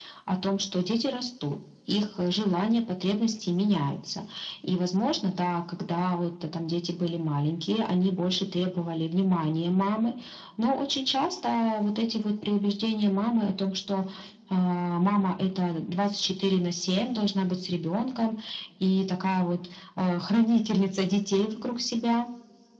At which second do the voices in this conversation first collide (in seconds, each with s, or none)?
none